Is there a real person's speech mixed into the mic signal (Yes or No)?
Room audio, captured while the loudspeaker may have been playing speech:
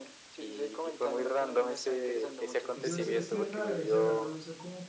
Yes